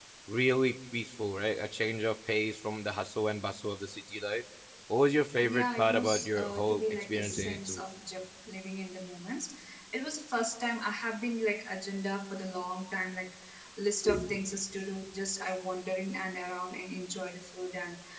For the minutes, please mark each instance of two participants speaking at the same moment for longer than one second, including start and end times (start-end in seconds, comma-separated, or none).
5.4-7.8